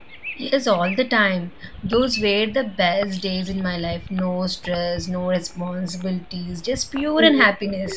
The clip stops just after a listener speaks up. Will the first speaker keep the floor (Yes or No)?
No